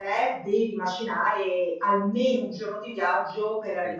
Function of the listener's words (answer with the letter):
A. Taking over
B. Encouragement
B